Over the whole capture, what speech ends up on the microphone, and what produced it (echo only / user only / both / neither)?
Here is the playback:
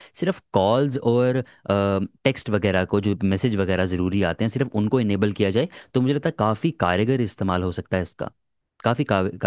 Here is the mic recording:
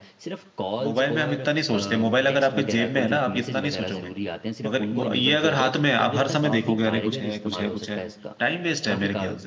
both